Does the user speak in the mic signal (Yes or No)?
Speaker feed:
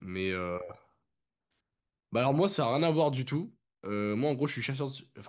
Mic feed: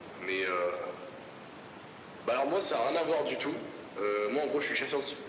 No